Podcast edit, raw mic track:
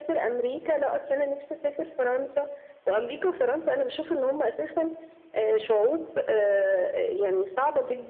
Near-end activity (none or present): none